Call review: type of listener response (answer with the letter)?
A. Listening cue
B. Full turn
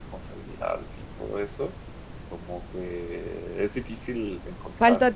A